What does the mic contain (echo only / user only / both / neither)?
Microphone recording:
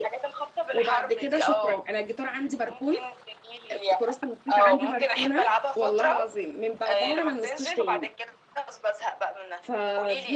both